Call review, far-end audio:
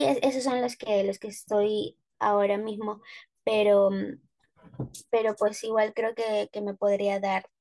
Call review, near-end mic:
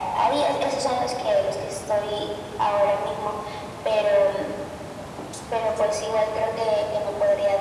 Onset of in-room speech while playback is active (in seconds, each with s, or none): none